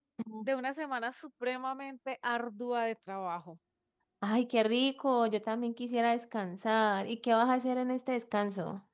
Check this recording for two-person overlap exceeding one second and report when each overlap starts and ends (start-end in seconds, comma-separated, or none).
none